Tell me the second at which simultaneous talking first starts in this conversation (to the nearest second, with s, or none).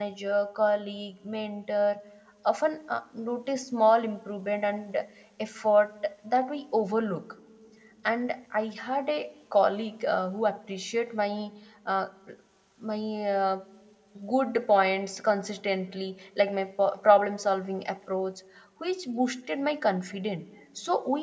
none